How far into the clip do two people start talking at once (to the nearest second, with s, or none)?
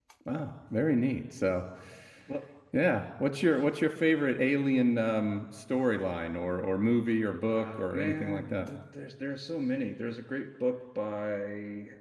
7 s